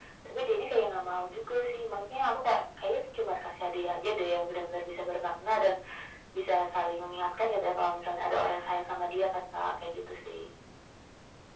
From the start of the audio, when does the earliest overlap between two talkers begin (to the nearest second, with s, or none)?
none